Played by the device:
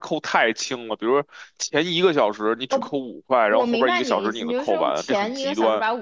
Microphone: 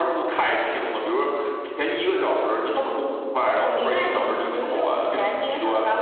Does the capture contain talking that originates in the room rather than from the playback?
No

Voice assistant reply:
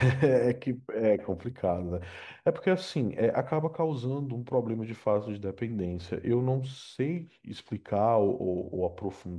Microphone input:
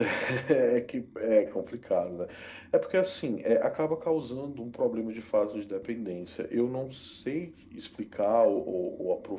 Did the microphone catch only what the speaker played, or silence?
Yes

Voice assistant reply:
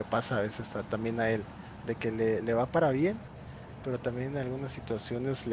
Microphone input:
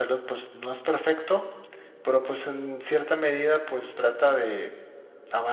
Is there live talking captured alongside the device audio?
Yes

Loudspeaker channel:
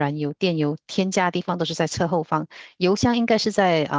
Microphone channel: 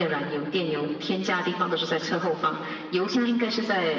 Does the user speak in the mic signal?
No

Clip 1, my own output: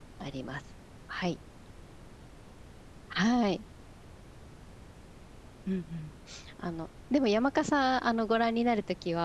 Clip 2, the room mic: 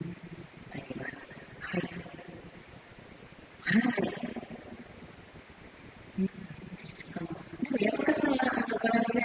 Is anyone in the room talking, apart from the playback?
No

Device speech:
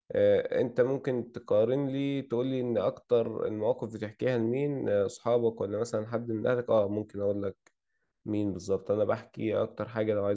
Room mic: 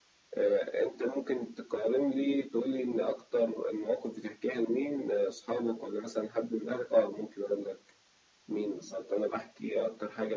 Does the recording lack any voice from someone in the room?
Yes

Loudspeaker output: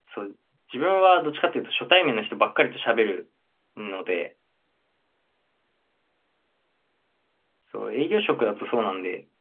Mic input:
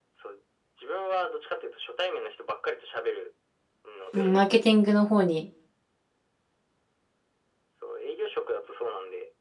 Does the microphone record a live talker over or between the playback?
Yes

